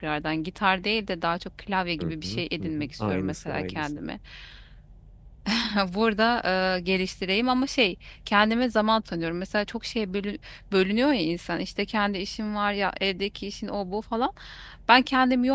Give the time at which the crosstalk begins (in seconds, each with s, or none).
2.0 s